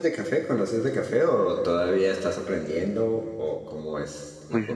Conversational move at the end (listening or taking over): taking over